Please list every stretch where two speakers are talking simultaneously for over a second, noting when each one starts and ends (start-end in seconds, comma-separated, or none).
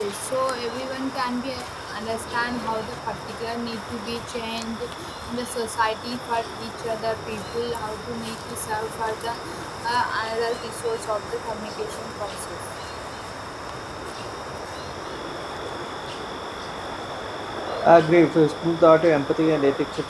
none